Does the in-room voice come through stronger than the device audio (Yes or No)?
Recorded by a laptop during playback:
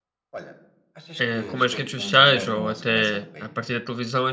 Yes